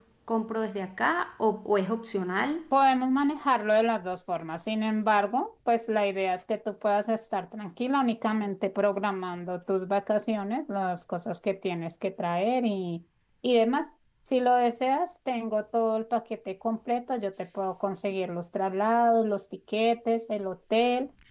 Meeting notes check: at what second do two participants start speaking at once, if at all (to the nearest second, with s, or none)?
none